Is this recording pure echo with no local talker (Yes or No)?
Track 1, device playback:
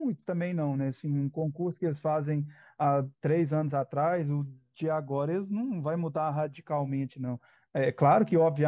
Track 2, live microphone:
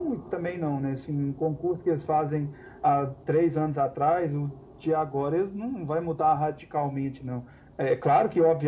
Yes